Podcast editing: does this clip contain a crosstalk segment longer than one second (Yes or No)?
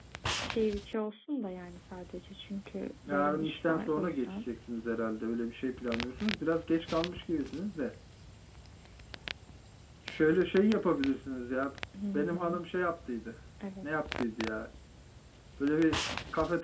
Yes